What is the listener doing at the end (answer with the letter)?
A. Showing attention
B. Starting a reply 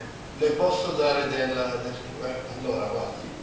A